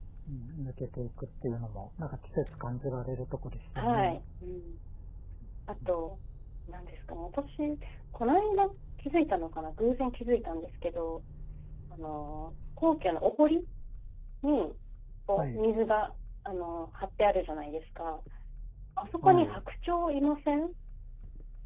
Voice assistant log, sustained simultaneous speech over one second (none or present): none